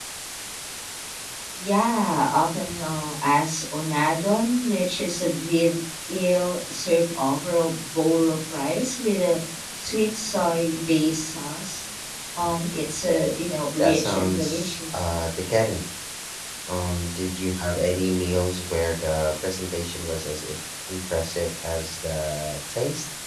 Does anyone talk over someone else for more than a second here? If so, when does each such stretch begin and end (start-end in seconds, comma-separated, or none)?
13.8-15.1